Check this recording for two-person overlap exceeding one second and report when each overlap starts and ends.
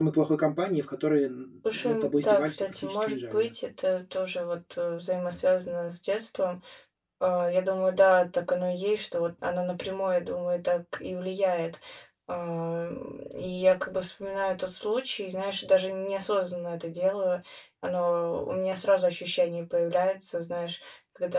1.7-3.5

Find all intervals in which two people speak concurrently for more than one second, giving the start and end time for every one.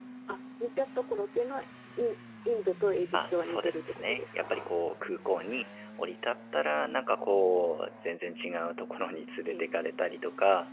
3.1-4.7

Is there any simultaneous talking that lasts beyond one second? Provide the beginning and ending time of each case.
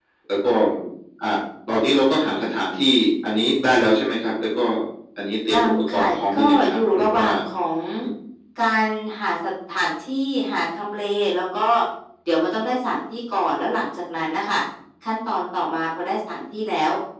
5.5-7.2

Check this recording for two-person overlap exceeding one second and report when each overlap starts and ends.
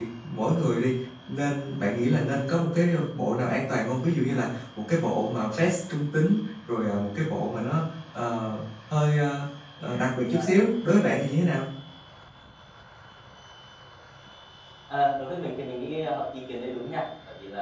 none

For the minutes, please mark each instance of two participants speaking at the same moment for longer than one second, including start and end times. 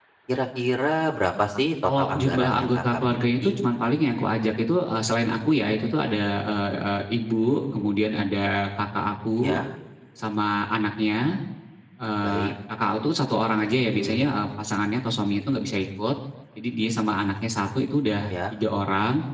1.8-3.6

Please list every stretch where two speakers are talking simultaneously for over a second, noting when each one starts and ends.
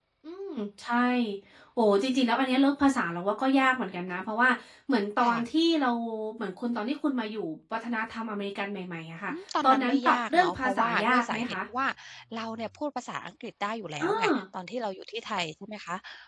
9.7-11.5

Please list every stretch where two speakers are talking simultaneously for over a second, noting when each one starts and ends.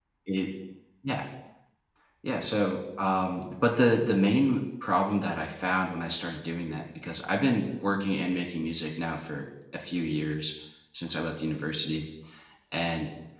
none

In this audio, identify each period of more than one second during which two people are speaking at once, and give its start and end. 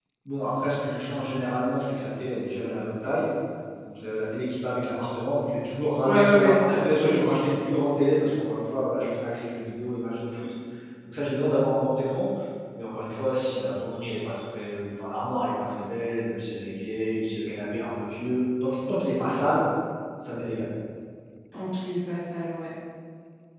6.0-7.3

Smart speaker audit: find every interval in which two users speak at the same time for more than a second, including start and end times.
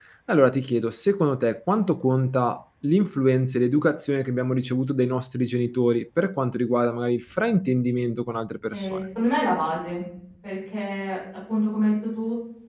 none

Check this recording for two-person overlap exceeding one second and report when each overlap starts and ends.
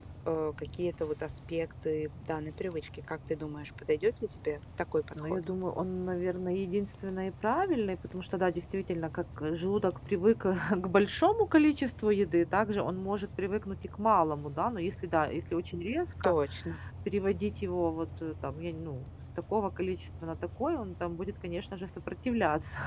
none

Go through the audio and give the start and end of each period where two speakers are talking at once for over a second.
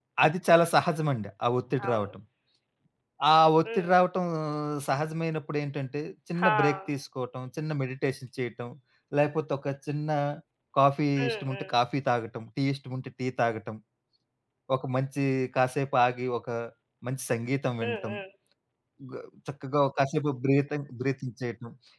none

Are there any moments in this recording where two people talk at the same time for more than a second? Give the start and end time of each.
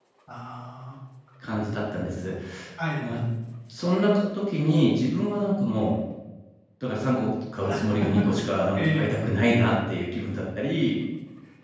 none

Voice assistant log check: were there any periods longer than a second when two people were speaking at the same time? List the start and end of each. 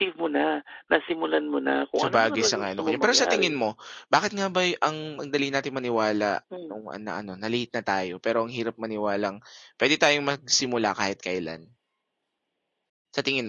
2.0-3.6

